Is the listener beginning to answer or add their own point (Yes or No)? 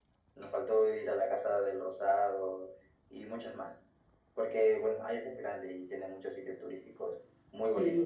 Yes